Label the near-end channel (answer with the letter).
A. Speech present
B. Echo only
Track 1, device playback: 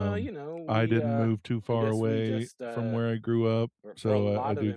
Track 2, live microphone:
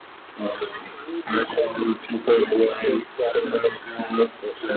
B